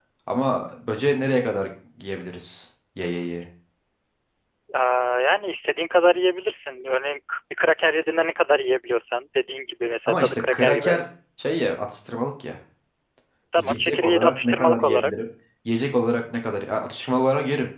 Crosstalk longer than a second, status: present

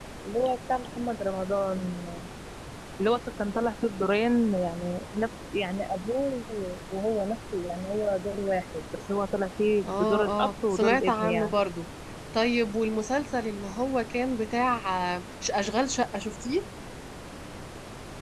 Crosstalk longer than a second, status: present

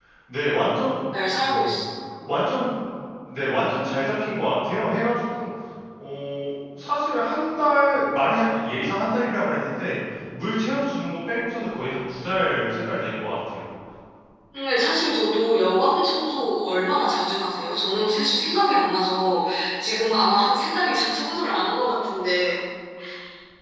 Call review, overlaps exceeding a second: none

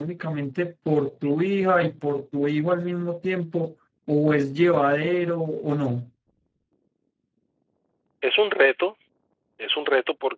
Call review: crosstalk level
none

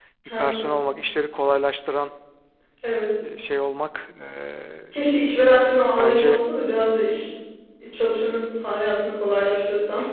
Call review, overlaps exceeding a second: none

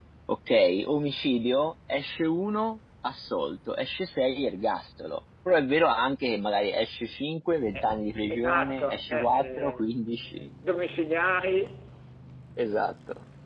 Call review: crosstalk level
present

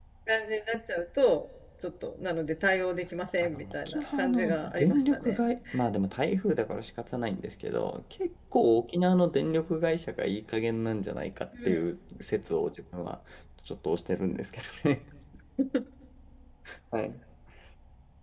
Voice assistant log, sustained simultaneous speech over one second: present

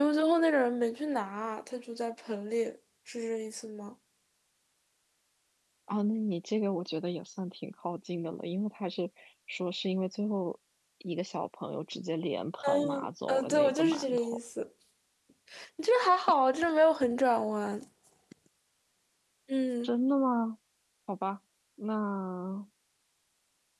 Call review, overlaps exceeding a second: present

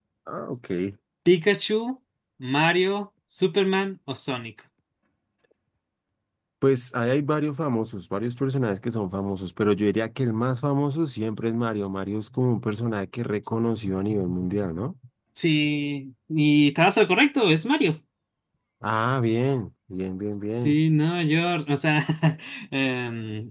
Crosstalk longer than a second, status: none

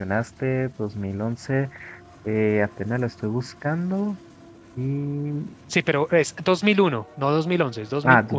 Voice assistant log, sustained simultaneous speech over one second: none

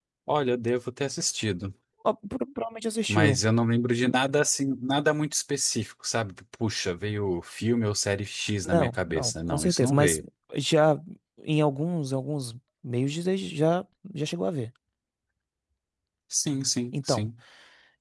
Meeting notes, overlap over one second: present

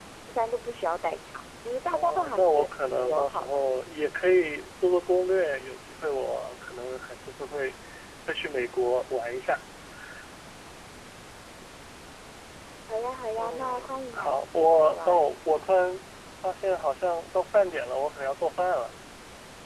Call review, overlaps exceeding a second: present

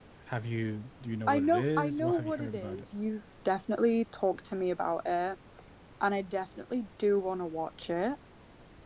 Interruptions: present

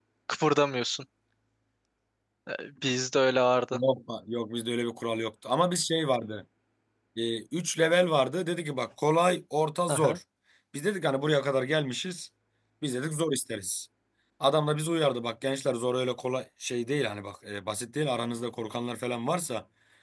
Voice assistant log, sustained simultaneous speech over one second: none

